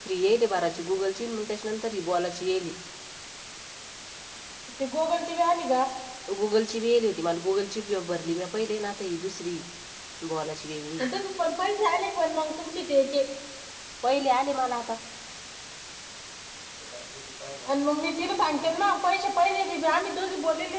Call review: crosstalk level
none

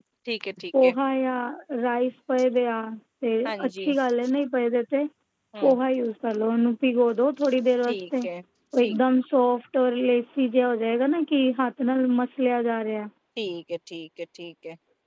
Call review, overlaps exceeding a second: none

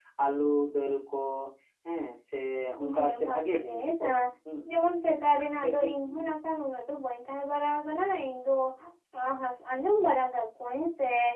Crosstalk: present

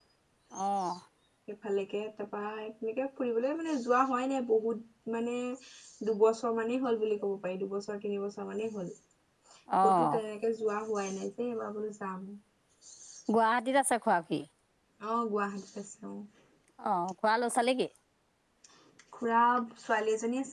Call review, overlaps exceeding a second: none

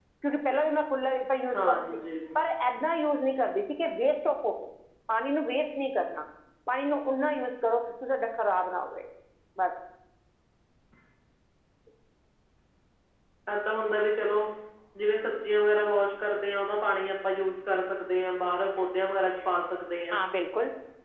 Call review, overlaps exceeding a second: none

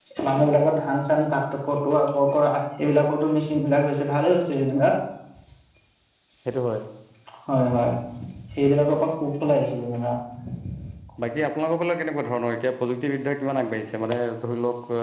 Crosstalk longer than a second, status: none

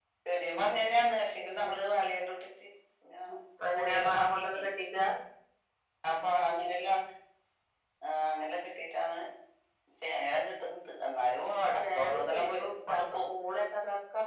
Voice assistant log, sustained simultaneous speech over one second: present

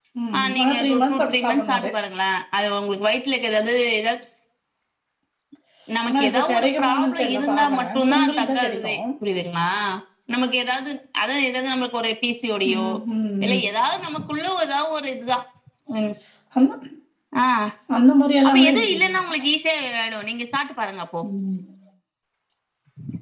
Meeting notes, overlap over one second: present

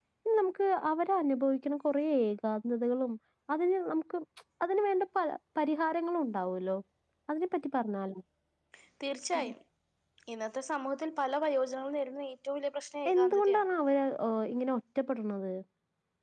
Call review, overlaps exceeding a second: none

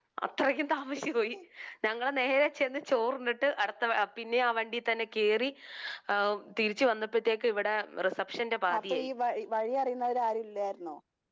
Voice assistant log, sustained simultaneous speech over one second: none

